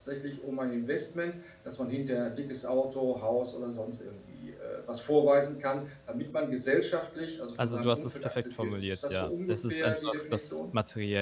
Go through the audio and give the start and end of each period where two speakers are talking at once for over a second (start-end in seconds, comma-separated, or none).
7.6-10.6